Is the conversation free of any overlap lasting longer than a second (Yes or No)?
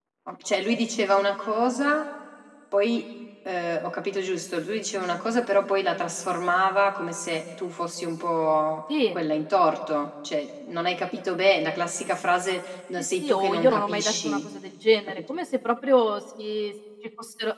No